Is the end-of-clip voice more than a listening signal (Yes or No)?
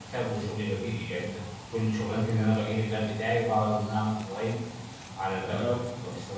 No